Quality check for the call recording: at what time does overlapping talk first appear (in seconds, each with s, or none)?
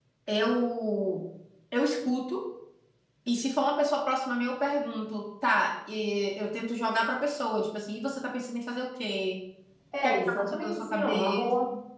9.9 s